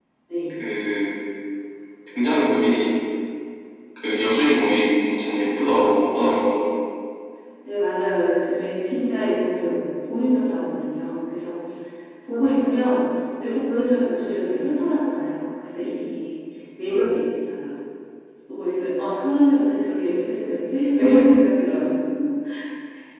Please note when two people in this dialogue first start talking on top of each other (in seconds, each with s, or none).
none